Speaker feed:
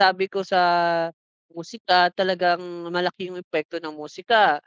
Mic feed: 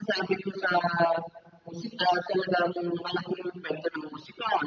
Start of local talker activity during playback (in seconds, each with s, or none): none